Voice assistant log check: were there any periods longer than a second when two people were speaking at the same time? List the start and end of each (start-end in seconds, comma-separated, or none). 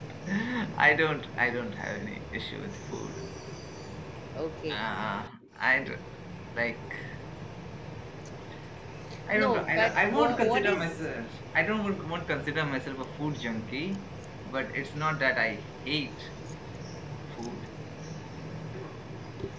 9.3-11.0